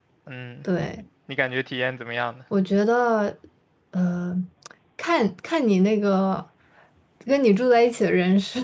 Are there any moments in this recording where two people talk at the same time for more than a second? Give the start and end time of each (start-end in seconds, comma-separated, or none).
none